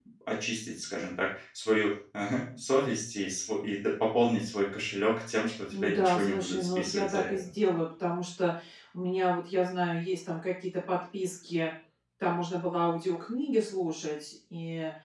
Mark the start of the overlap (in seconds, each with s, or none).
5.7 s